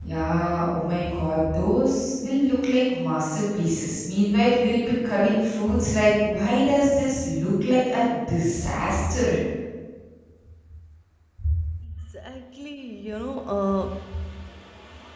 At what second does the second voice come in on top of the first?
none

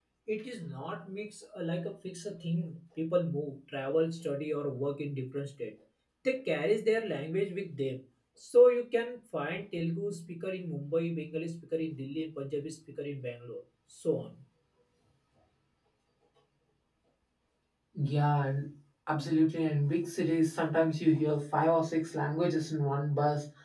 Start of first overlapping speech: none

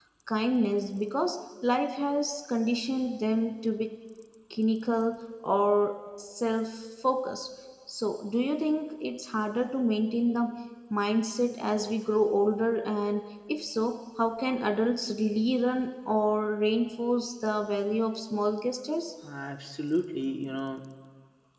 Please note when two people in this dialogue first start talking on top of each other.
none

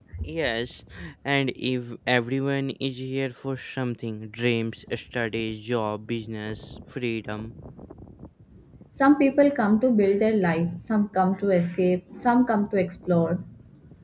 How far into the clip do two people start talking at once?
none

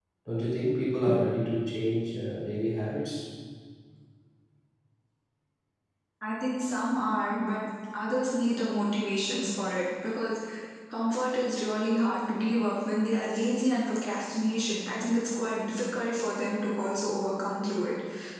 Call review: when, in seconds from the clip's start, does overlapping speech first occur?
none

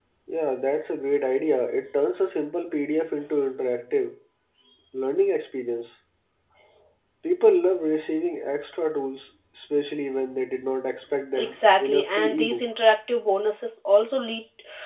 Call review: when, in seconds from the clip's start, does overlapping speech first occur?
11 s

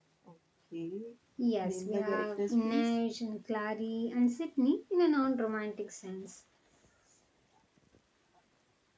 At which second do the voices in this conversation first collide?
2 s

